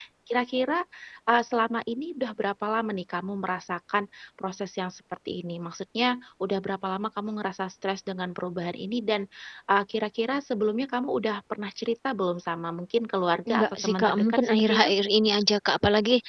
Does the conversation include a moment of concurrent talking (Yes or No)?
Yes